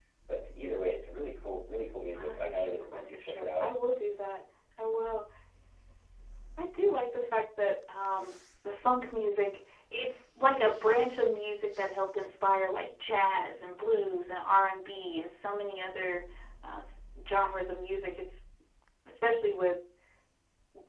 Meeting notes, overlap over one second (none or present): present